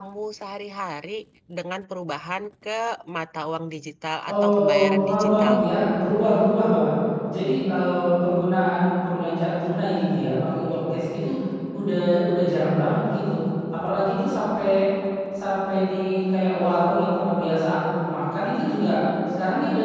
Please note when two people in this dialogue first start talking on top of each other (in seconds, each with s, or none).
4.3 s